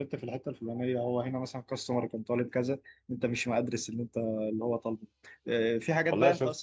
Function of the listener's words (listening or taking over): taking over